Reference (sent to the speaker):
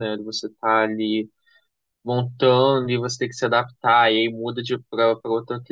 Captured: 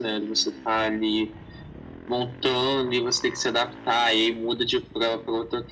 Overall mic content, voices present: echo only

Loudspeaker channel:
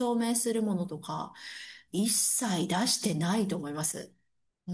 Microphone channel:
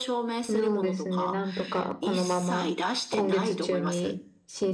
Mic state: both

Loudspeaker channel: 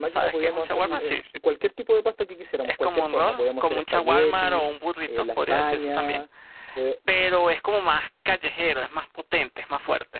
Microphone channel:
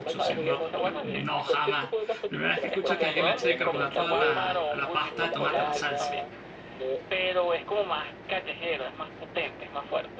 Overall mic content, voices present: both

